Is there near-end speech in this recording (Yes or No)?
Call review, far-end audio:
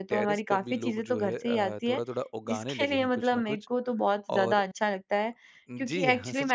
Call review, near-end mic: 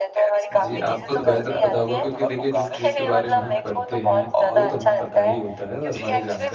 Yes